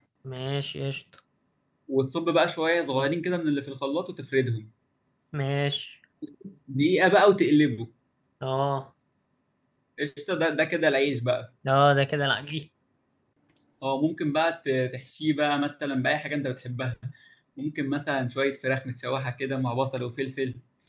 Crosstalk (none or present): none